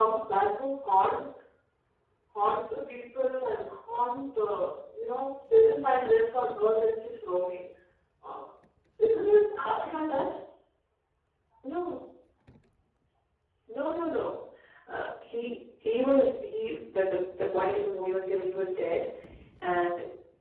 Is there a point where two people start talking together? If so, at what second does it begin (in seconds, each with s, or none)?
none